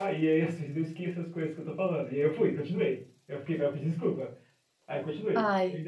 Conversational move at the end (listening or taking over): listening